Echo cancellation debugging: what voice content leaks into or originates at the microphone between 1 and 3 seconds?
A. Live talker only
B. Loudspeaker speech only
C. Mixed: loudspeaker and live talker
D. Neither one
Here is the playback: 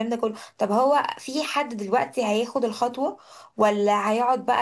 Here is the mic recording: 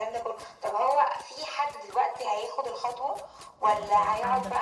B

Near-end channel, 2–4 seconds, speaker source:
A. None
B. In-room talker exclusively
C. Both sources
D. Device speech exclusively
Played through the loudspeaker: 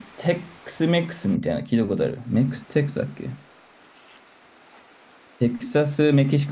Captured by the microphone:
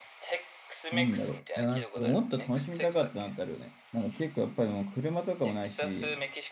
C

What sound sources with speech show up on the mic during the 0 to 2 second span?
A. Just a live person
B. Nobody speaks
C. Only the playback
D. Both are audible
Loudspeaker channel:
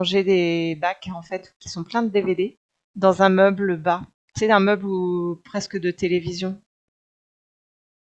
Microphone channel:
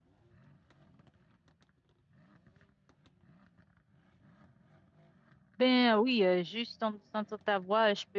B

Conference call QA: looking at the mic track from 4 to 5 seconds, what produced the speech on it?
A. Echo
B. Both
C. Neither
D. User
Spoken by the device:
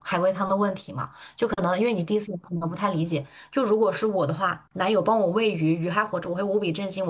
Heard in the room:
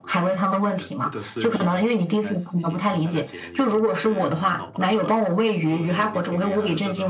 B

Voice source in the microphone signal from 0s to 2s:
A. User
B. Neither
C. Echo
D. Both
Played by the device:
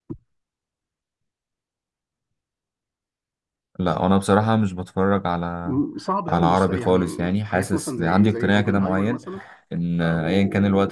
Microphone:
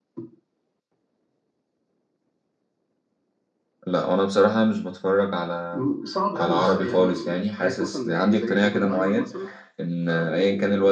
B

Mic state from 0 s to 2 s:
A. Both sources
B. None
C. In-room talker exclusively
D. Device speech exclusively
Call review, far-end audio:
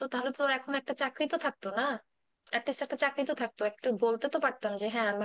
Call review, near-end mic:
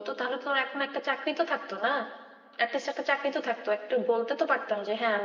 D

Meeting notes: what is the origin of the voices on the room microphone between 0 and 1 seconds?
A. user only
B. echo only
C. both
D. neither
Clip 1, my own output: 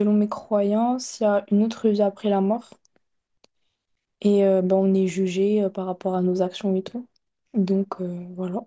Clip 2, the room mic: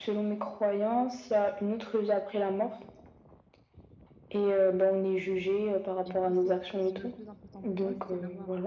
B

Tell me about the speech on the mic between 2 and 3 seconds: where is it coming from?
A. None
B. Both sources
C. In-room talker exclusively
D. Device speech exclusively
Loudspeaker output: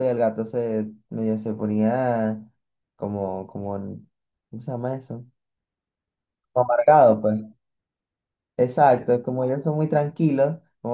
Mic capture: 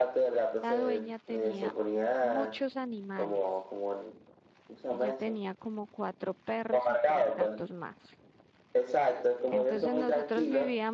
B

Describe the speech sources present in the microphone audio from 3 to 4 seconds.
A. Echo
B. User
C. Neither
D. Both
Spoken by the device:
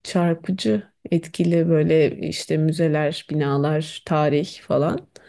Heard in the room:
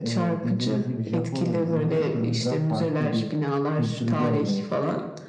D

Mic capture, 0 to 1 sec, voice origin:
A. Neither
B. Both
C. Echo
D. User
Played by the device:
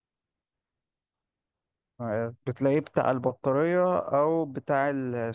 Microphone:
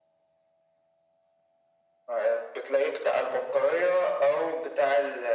A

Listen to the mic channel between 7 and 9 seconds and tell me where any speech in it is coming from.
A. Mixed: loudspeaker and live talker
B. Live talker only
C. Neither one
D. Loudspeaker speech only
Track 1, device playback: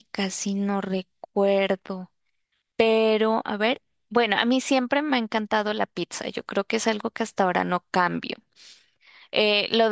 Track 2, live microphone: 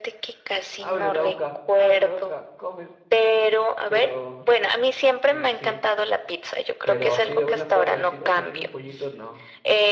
A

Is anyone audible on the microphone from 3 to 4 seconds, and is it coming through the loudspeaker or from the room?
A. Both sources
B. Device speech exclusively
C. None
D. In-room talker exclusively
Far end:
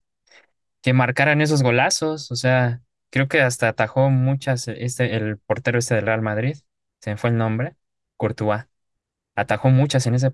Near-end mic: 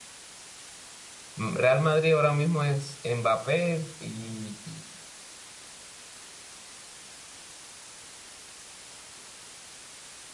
D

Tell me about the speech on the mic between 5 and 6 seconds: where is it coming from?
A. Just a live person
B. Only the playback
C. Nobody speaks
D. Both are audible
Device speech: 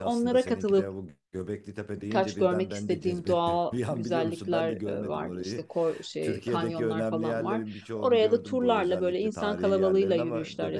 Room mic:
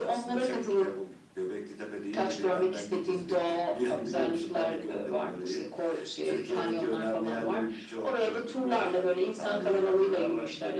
B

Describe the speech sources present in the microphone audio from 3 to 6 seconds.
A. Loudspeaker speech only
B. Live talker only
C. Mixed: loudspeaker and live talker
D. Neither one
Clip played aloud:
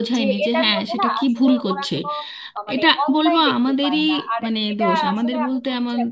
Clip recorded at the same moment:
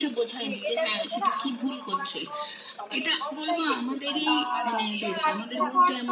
C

